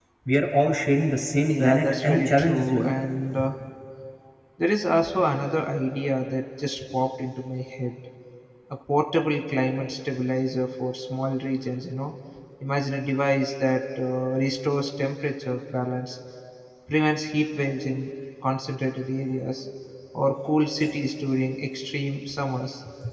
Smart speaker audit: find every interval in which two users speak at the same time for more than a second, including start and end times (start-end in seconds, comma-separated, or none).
1.5-2.9